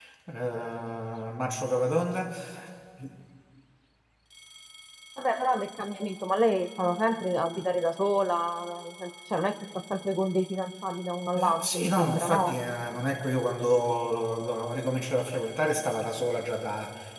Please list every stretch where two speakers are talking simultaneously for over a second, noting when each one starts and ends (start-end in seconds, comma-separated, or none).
11.4-12.6